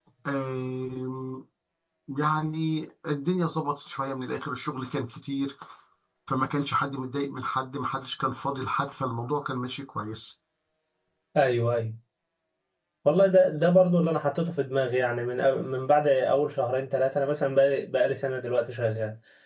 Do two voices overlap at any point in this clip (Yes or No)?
No